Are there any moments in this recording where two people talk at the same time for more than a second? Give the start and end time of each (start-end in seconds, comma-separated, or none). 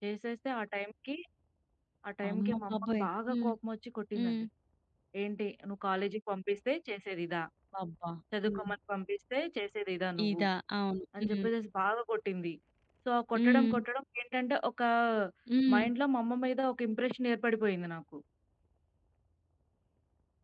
2.3-3.5